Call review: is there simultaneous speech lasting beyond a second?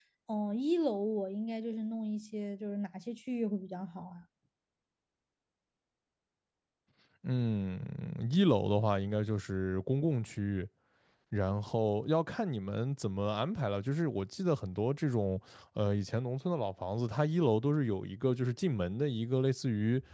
No

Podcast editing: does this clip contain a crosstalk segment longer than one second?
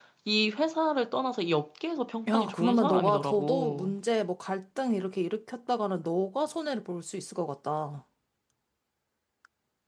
Yes, from 2.3 s

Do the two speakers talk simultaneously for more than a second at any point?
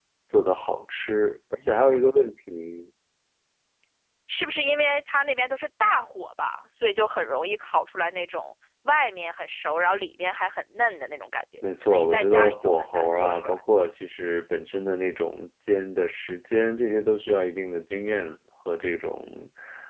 Yes, from 11.8 s

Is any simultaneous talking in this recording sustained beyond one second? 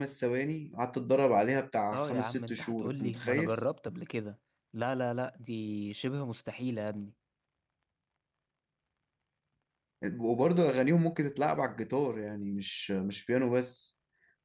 Yes, from 1.9 s

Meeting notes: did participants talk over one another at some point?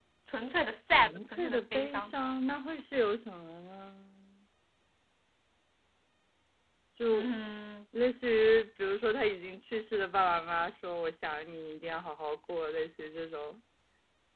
Yes, from 0.9 s

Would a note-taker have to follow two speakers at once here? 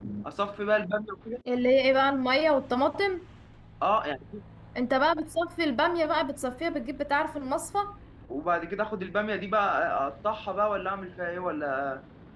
No

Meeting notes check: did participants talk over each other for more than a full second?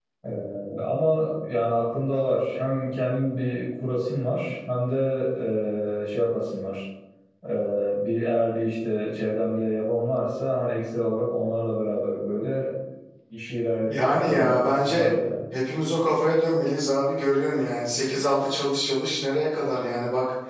Yes, from 13.9 s

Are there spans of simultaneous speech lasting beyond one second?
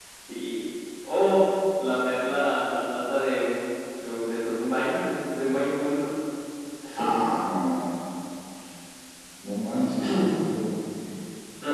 No

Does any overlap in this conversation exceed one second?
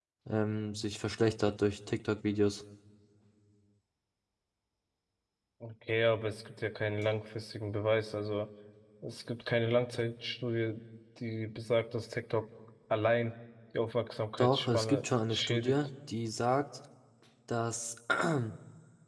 Yes, from 14.4 s

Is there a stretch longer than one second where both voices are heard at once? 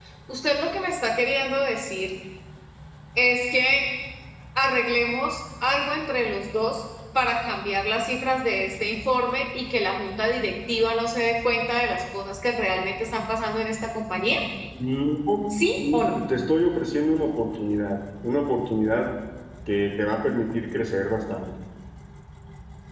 No

